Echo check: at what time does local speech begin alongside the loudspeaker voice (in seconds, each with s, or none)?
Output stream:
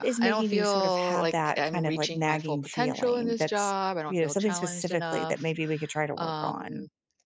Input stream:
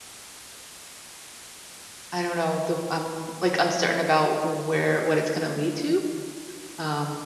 2.1 s